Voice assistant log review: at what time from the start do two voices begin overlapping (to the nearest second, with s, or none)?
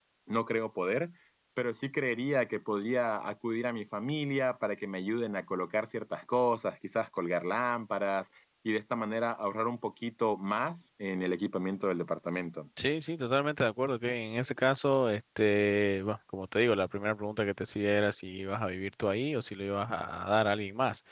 none